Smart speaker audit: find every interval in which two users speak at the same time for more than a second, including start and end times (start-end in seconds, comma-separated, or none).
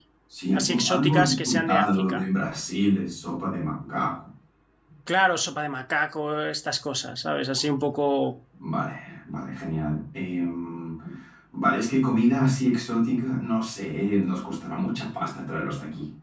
0.5-2.2